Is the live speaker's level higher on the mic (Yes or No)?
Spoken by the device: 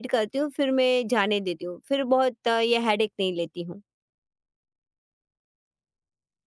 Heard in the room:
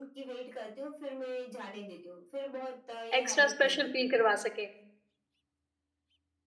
Yes